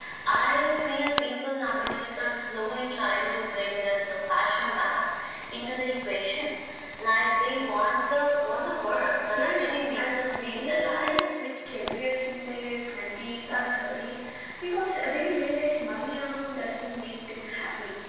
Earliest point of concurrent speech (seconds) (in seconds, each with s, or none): 9.3 s